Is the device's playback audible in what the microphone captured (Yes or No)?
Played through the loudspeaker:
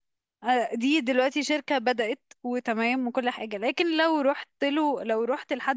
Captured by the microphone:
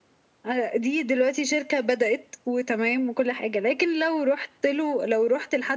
Yes